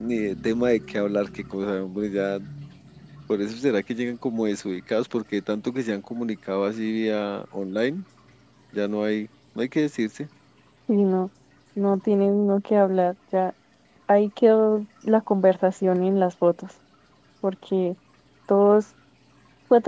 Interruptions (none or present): none